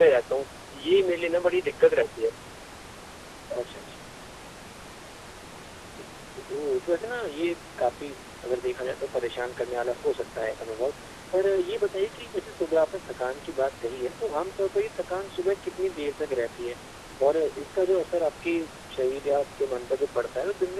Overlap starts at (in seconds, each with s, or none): none